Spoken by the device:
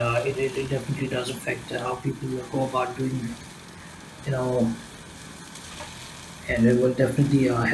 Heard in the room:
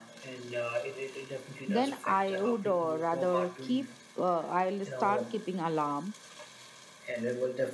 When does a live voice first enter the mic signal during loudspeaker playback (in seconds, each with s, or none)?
1.6 s